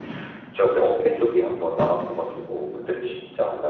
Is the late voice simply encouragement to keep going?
Yes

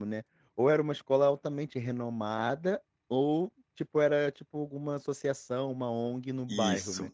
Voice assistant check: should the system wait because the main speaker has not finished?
No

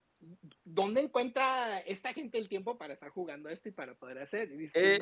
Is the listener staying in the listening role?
No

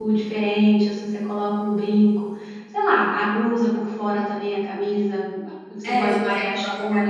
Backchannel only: No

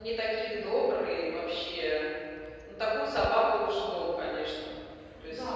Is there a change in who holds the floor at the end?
Yes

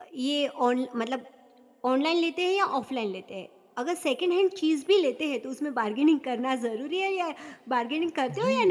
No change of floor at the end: No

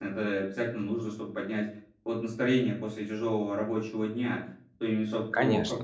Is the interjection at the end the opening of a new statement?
No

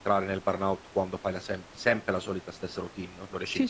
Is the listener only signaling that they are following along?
No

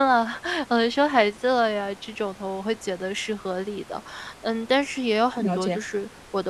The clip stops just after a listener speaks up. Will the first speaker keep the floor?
Yes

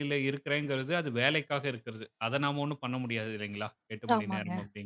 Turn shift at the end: No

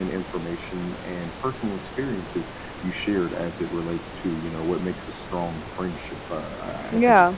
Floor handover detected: No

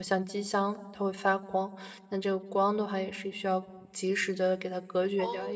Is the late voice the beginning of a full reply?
Yes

